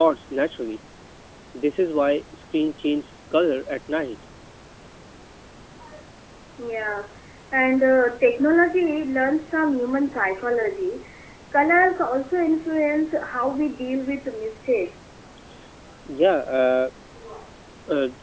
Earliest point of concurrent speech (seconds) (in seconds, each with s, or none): none